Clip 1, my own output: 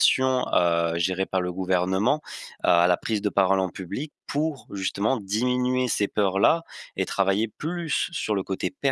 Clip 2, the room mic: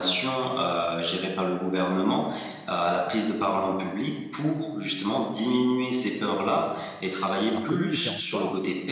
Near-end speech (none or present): present